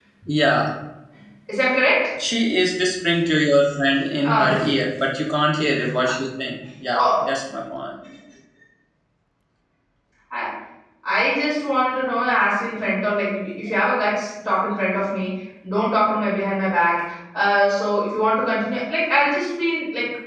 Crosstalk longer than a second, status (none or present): none